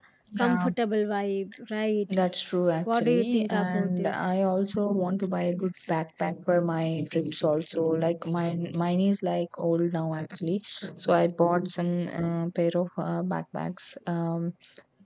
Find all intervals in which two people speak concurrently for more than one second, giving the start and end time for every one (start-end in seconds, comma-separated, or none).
2.9-4.2